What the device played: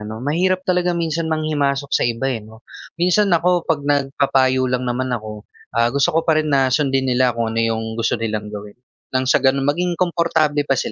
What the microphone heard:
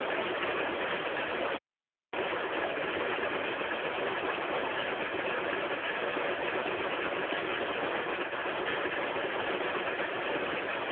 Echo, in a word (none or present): none